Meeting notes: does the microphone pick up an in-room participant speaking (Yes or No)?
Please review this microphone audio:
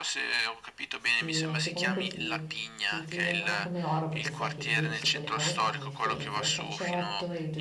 Yes